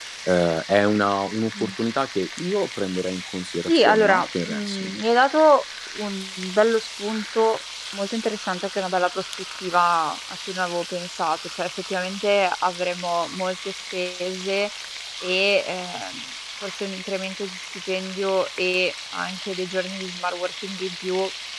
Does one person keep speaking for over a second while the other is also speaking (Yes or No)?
Yes